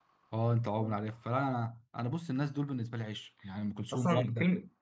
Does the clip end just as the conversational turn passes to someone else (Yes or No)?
Yes